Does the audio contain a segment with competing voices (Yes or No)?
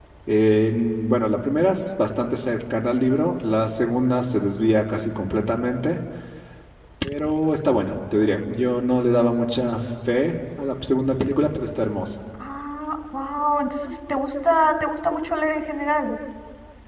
No